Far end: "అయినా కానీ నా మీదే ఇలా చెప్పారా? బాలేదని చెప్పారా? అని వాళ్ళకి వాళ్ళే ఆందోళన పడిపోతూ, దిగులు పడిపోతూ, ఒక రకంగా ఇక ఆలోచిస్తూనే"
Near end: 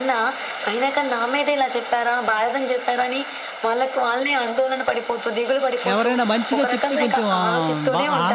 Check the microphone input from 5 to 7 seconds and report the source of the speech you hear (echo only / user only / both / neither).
both